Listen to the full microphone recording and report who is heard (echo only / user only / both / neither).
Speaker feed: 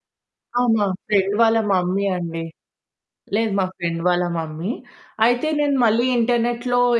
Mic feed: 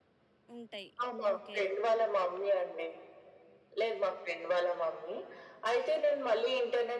both